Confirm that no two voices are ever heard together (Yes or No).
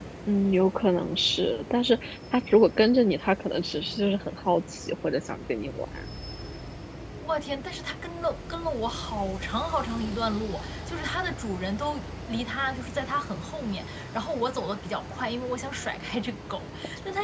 Yes